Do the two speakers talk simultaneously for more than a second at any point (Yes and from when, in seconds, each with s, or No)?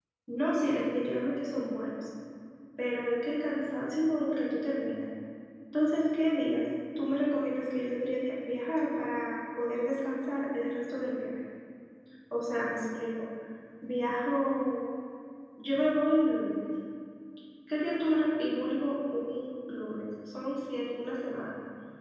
No